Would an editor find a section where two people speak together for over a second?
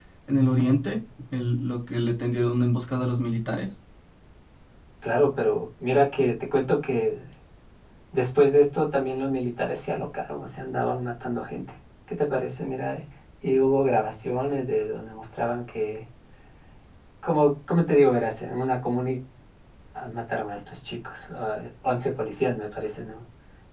No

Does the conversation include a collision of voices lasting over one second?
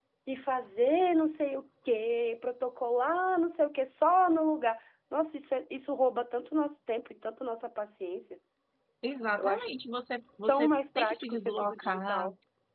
Yes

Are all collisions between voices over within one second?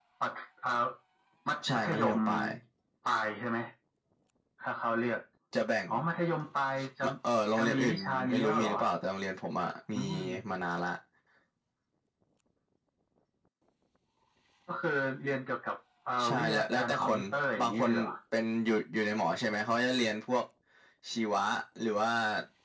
No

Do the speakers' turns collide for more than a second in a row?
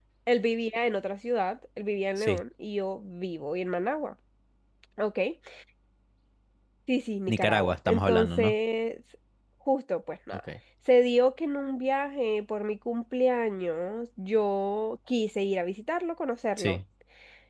Yes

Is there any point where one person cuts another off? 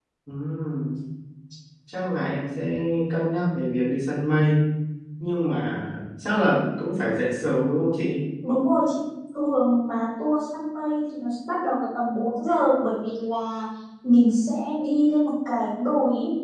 No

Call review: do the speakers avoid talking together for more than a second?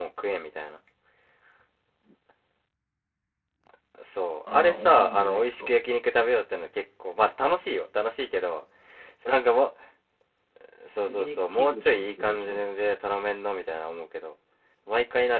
No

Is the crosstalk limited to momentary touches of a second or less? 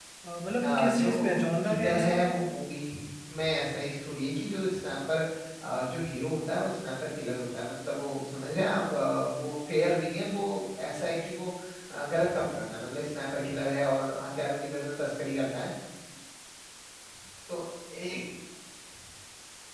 No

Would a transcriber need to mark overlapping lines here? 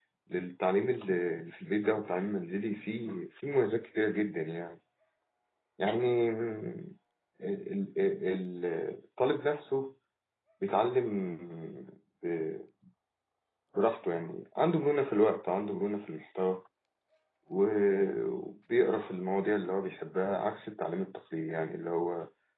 No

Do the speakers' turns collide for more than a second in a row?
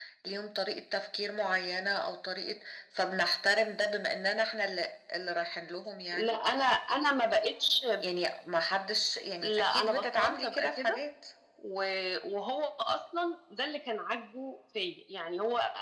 Yes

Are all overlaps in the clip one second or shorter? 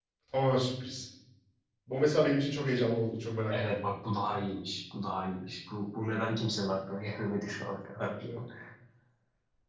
Yes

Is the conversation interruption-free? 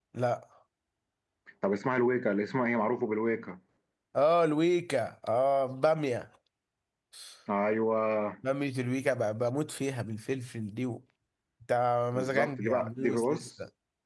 No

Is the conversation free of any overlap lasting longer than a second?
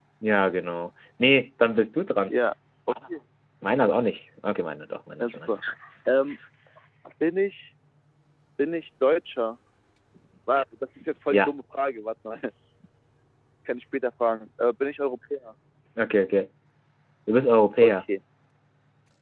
Yes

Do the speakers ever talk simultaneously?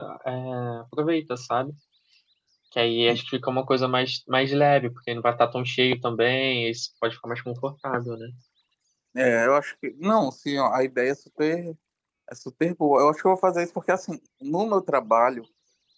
No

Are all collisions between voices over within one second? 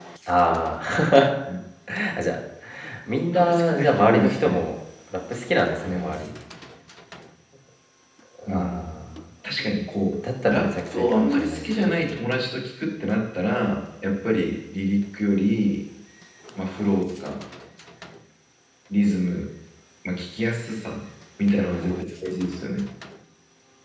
No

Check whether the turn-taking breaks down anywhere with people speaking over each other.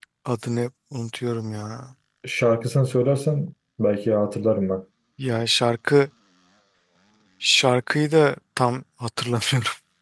No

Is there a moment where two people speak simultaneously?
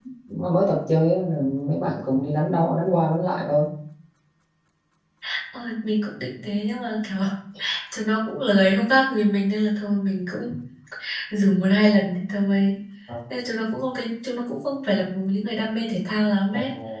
No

